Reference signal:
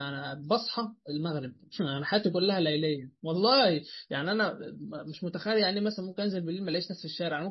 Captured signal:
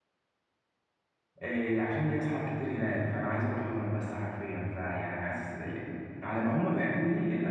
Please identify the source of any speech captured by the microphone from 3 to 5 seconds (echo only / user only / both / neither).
user only